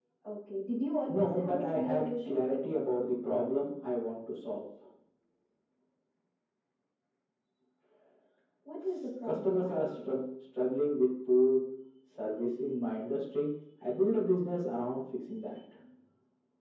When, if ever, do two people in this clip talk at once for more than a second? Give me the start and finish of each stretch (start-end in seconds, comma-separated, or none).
1.1-2.4, 8.9-10.1